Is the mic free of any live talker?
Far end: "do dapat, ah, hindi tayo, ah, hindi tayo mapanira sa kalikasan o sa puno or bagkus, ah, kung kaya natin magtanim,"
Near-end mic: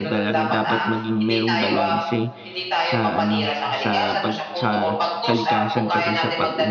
No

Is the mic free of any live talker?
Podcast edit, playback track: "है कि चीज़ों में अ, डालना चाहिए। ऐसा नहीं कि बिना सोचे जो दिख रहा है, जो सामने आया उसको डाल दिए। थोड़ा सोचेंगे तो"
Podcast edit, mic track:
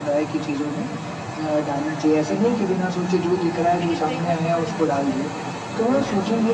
No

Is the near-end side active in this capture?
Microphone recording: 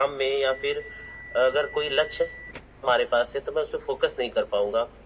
No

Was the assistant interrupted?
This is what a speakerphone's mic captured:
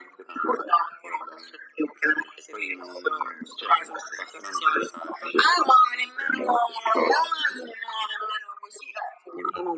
No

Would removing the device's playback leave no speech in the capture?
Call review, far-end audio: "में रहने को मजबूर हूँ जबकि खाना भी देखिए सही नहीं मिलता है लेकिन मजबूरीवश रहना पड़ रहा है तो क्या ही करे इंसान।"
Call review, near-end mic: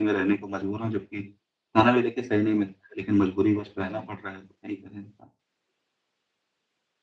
No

